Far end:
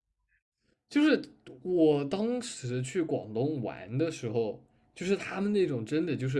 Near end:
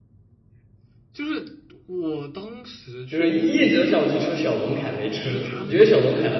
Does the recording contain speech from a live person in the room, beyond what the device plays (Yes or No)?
Yes